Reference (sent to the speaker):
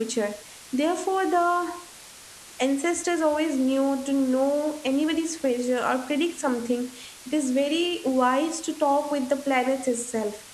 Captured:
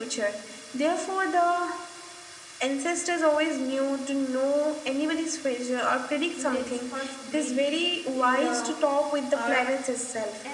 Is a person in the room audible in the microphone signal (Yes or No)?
Yes